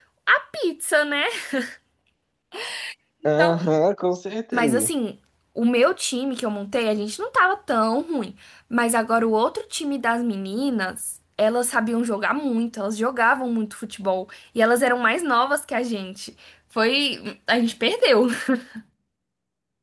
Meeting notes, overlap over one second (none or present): none